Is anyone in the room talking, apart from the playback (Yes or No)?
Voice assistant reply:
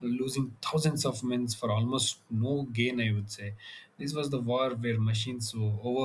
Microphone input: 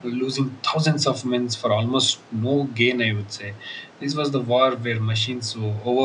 No